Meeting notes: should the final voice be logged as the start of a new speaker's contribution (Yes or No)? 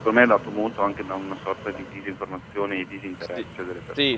Yes